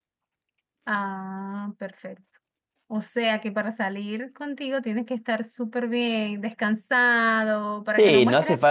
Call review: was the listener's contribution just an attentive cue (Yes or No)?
No